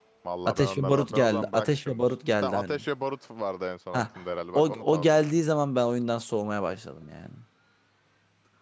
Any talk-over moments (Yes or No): Yes